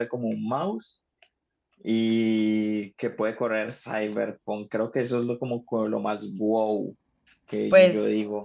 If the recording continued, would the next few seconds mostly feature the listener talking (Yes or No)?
Yes